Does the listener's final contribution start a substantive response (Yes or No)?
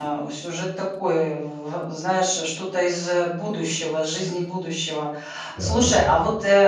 No